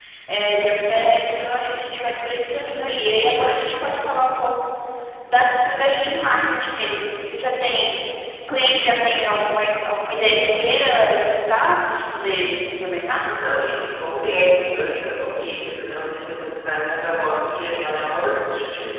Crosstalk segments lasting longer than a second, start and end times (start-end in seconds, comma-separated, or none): none